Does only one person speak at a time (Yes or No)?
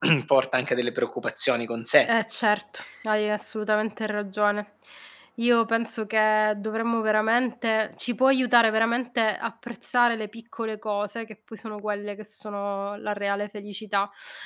Yes